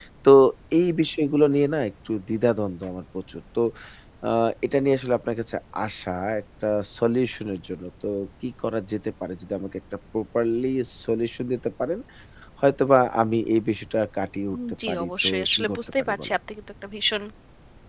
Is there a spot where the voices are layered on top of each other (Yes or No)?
Yes